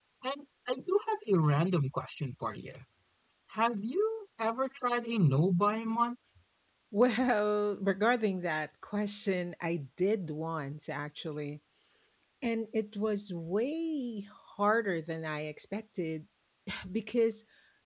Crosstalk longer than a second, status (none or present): none